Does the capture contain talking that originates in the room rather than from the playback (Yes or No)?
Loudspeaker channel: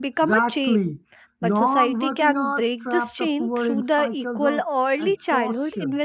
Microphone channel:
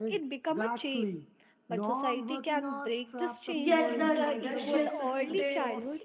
Yes